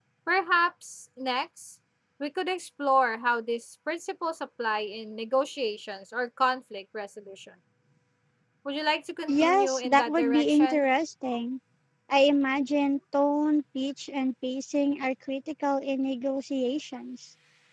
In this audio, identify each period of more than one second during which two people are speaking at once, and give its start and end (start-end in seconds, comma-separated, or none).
9.4-10.8